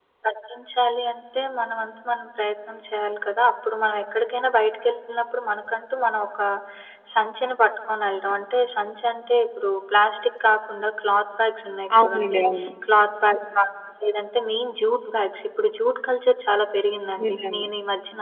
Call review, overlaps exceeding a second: none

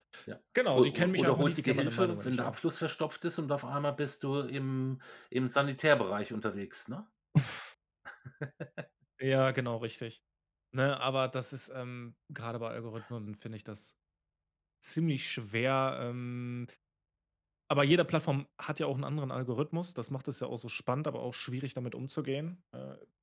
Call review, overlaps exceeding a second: present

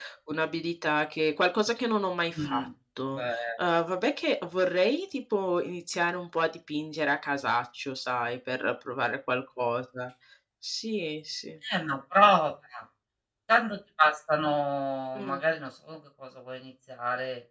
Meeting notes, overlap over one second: none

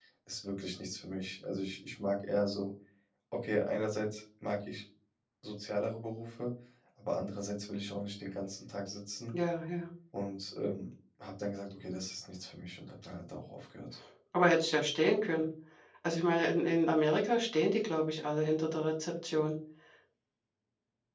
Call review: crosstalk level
none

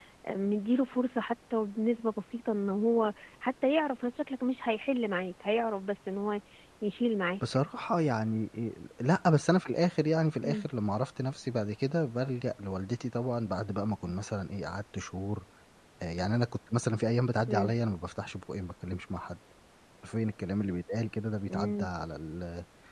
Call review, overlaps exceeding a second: none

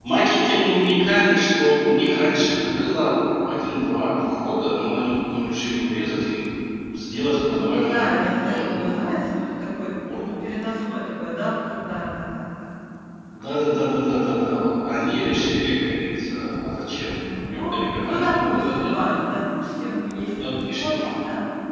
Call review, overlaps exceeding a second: present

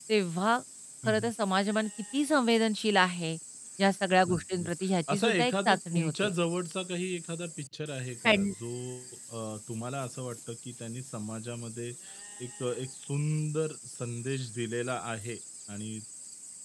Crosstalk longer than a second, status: present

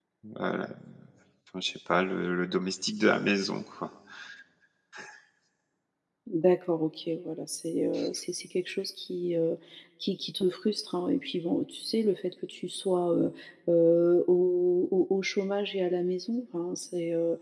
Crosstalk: none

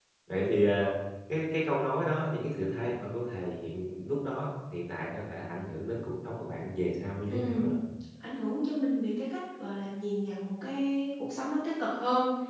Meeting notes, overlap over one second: none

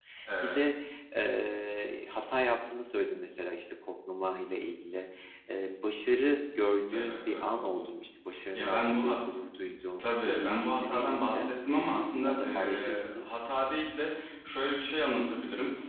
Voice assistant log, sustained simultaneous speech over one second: present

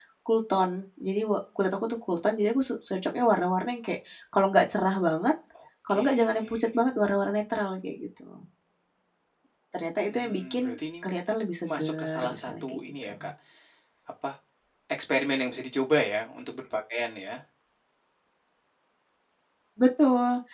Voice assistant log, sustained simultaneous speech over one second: present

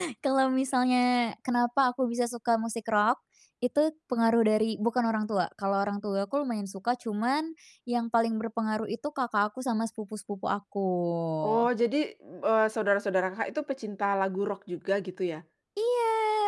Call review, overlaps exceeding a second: none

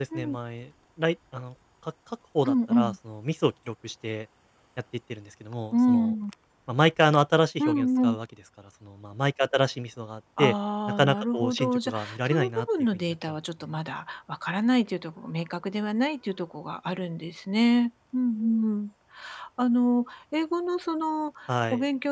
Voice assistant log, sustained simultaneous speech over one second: present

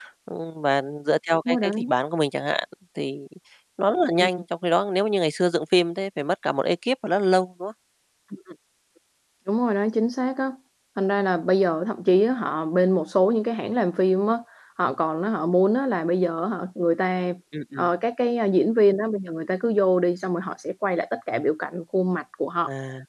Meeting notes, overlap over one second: none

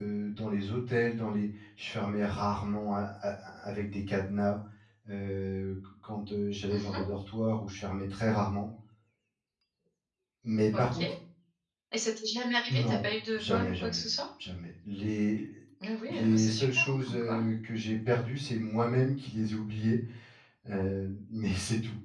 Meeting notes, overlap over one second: present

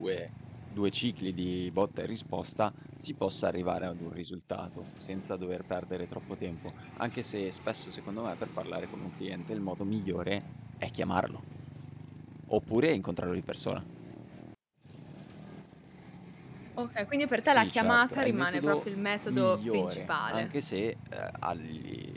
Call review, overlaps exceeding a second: present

